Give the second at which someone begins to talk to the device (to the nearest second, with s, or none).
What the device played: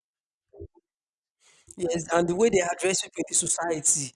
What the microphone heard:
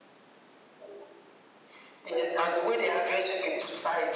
none